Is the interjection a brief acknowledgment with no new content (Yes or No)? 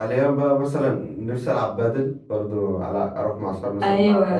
No